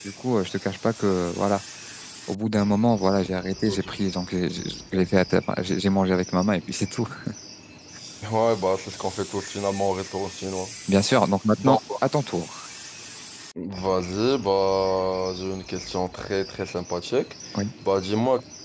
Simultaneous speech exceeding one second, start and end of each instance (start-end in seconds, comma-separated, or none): none